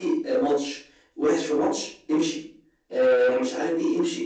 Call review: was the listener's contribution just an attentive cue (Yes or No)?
Yes